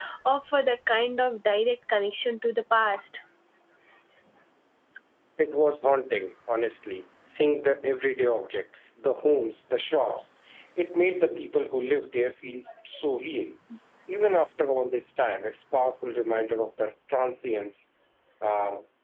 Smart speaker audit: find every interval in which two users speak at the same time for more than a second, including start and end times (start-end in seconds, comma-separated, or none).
none